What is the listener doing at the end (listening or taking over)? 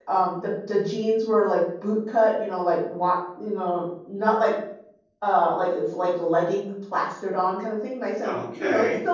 taking over